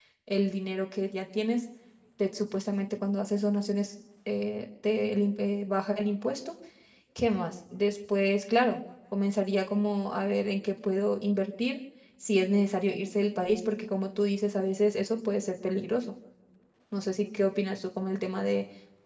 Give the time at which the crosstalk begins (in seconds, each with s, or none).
none